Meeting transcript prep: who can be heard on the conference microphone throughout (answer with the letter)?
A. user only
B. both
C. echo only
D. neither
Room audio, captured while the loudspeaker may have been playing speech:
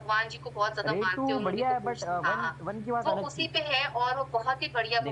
B